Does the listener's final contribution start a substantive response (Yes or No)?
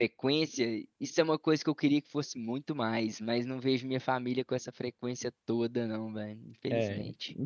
Yes